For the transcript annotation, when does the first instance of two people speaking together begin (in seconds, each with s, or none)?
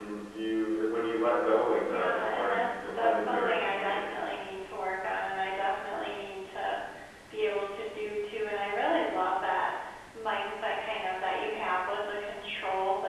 1.8 s